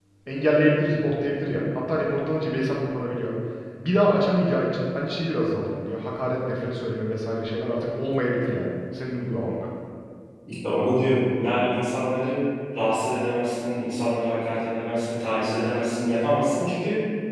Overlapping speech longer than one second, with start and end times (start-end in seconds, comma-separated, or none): none